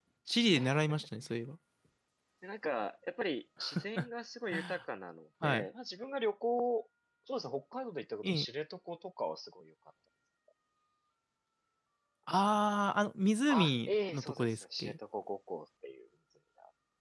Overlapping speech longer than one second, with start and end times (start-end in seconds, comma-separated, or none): 13.5-14.9